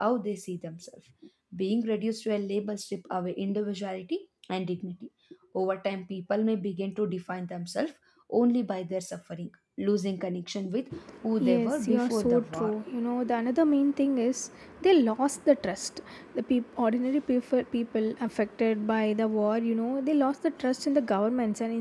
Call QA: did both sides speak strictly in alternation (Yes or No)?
No